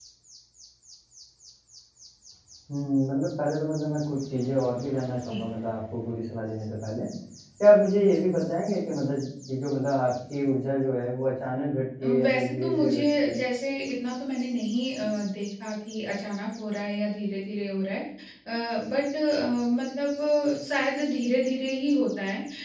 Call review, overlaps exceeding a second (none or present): present